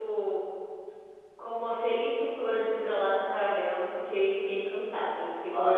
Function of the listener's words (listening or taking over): taking over